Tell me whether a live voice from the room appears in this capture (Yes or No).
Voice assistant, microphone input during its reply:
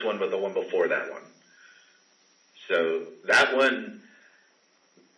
No